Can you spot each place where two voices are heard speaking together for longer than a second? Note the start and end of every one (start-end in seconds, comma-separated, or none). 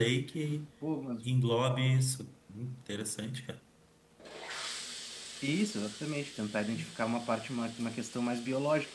none